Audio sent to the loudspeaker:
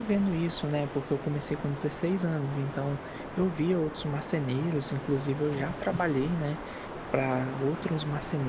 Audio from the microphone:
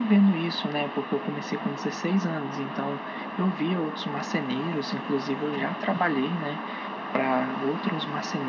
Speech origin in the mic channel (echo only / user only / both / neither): echo only